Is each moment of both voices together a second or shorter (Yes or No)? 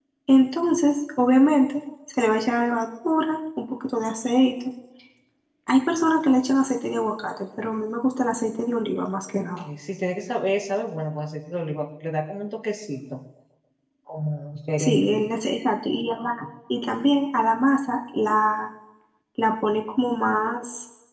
Yes